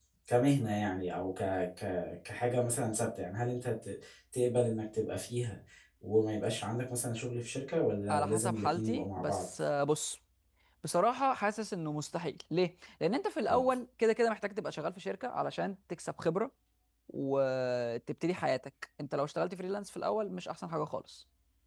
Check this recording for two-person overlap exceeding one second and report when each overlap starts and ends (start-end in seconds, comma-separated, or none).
8.1-9.4